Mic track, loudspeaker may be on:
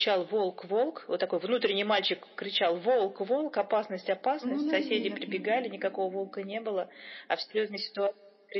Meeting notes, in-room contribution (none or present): present